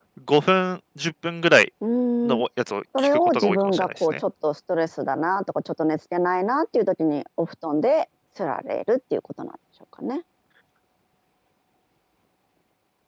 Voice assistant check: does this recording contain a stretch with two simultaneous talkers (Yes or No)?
Yes